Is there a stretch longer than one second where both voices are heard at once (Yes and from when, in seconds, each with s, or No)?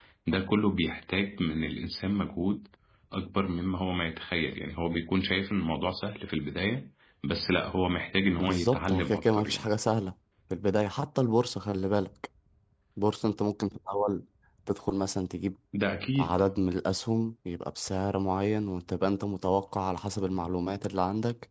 Yes, from 8.4 s